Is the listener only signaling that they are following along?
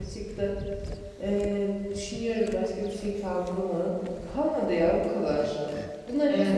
Yes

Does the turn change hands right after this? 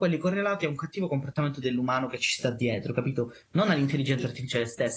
No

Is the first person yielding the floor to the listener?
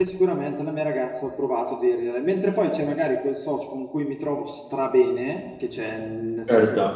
No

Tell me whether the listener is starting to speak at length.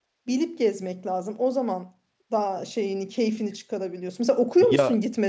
Yes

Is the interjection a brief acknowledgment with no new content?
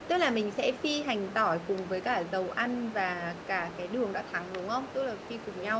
No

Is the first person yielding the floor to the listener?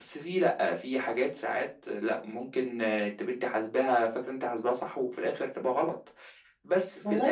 Yes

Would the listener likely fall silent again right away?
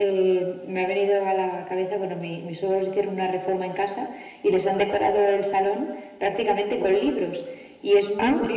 Yes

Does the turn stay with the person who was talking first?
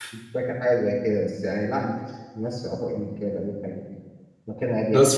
No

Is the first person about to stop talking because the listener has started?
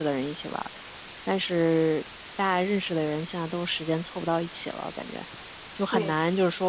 No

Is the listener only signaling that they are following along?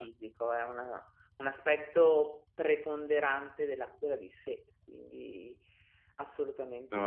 No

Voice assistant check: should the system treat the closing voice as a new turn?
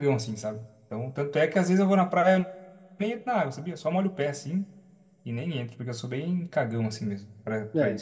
Yes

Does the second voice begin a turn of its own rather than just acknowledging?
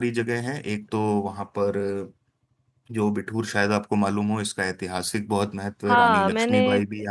Yes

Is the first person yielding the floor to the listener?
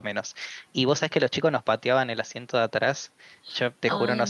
No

